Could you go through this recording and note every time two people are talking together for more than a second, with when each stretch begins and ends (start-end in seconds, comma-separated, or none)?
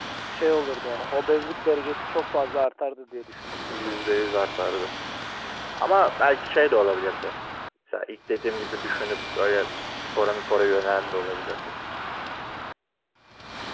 none